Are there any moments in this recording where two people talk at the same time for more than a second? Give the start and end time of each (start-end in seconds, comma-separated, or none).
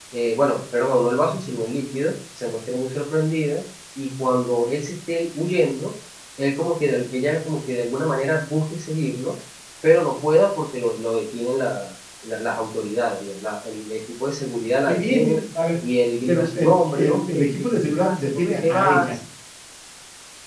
16.3-19.1